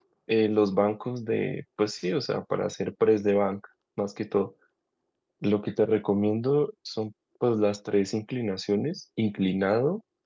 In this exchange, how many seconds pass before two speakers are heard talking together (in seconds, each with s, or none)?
none